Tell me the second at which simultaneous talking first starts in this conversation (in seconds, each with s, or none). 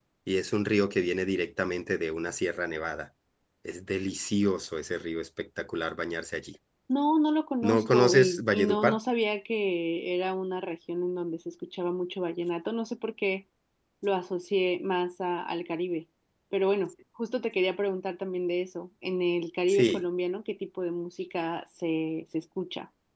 7.6 s